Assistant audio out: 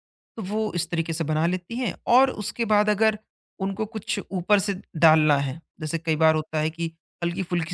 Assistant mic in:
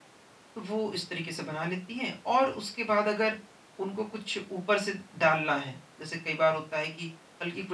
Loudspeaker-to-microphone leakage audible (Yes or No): Yes